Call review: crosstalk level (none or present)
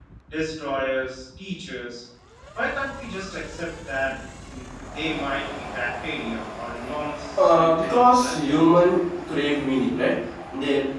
present